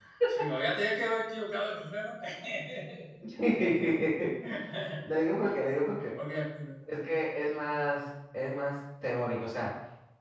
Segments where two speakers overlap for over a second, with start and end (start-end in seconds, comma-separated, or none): none